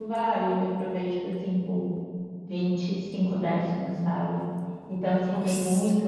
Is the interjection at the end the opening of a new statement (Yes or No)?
No